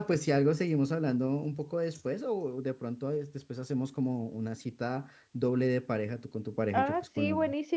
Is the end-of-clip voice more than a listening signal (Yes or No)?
Yes